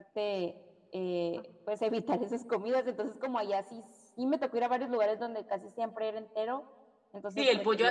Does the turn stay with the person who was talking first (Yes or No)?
No